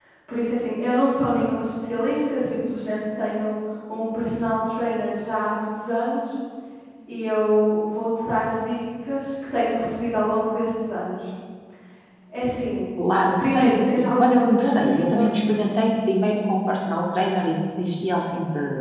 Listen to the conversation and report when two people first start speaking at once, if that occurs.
13.4 s

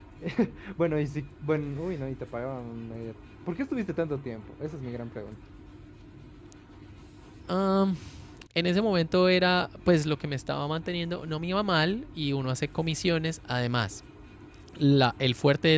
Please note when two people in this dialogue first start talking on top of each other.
none

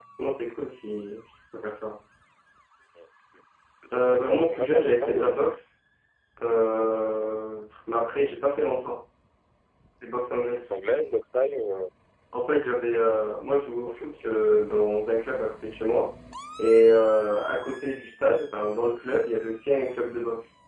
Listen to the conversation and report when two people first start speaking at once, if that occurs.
3.9 s

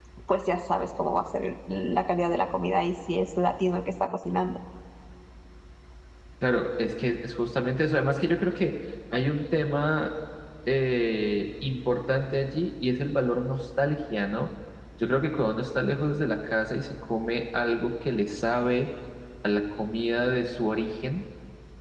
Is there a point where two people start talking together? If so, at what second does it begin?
none

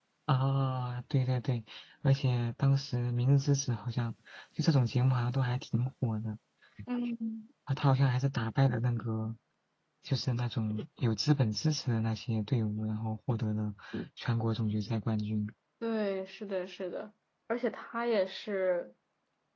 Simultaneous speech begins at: none

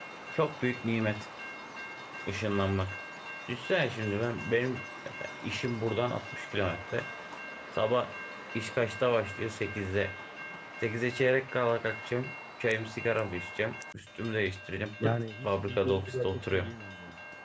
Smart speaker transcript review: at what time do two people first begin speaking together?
15.0 s

